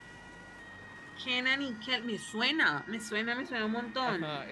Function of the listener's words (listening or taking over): taking over